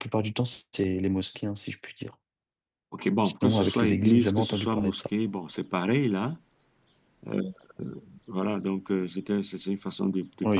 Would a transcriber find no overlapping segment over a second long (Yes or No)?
No